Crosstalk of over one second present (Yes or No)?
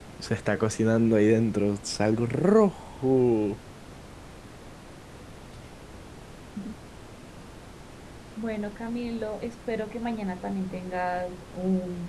No